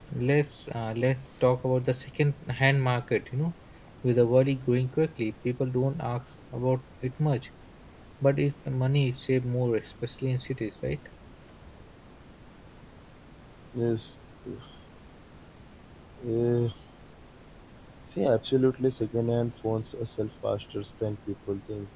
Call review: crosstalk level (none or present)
none